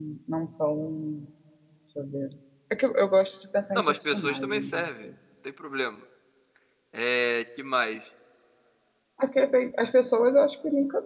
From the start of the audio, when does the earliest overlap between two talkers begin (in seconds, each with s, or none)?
3.8 s